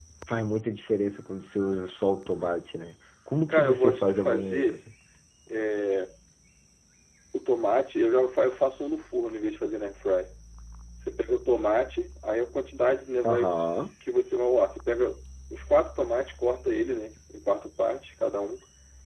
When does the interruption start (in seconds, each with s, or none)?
3.5 s